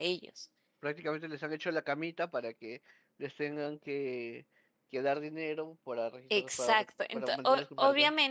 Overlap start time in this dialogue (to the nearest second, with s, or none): 6 s